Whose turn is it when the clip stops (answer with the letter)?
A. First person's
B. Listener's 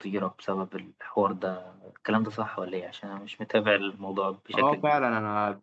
B